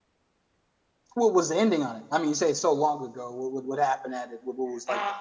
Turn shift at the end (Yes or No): Yes